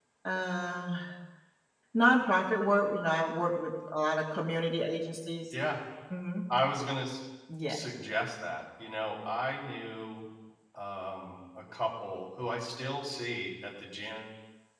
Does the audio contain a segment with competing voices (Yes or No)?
No